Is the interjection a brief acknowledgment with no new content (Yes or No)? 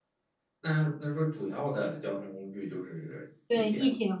No